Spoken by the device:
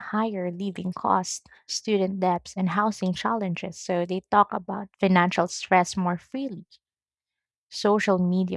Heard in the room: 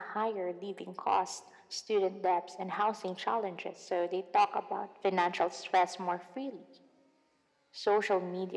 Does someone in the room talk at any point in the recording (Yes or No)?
No